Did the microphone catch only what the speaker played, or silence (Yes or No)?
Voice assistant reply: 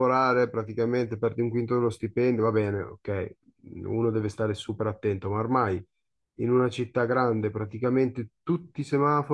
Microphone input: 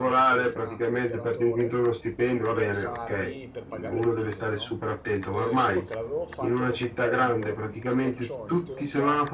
No